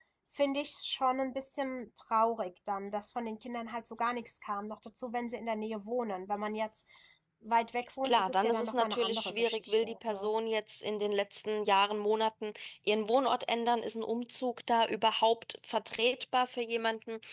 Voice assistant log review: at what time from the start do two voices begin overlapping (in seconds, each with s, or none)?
8.0 s